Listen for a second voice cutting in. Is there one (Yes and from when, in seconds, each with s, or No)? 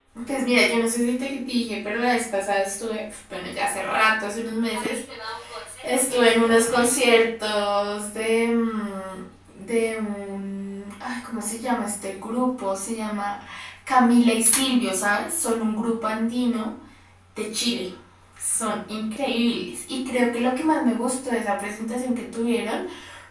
No